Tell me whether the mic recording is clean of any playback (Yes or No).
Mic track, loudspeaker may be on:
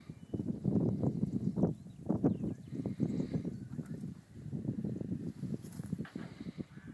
Yes